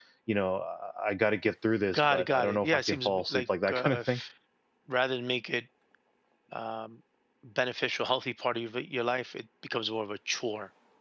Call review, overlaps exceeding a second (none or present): present